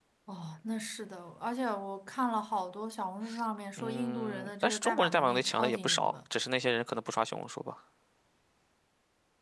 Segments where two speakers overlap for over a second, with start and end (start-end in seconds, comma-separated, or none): 4.0-6.1